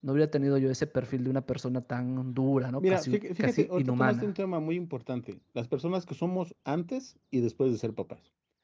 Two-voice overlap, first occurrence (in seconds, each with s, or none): 2.8 s